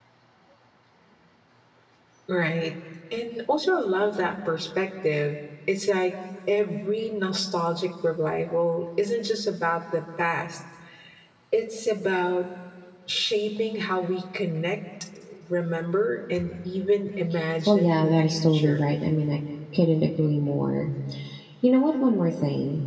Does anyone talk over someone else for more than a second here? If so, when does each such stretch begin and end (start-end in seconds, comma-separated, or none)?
17.7-18.9